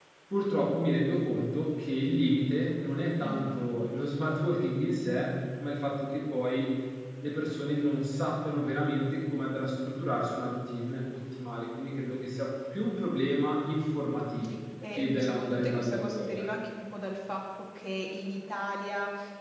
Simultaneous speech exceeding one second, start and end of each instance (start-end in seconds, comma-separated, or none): 14.9-16.5